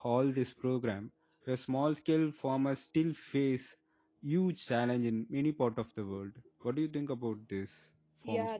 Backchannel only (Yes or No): No